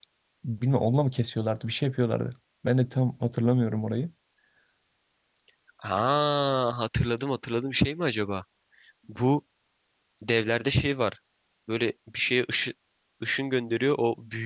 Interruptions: none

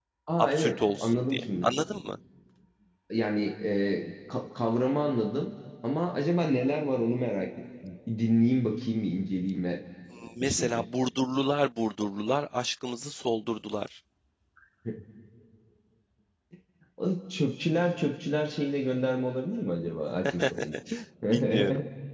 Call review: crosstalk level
present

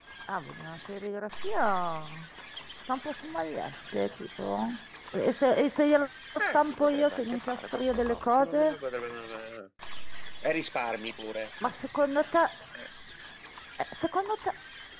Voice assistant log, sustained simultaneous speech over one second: present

